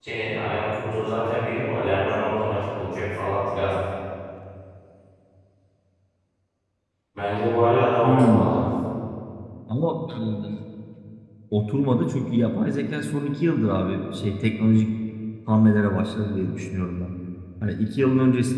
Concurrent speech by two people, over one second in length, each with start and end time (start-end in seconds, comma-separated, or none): none